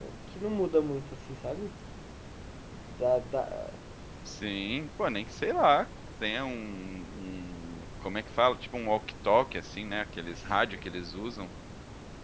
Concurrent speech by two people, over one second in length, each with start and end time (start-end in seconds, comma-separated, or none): none